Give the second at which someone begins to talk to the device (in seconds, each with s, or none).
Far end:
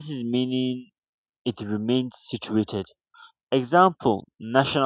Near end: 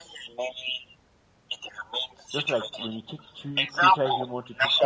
2.3 s